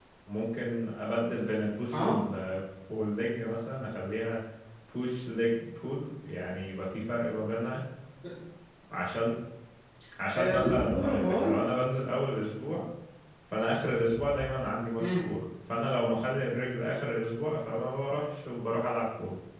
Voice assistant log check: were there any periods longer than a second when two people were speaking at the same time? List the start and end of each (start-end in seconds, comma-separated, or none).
10.3-11.6